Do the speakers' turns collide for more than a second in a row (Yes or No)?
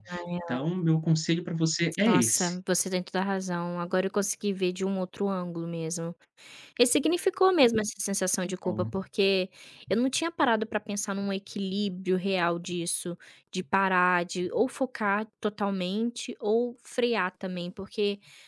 No